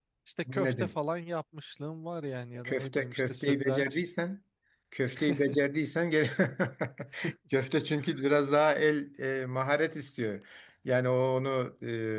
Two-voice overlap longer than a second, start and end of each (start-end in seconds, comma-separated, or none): 2.6-4.0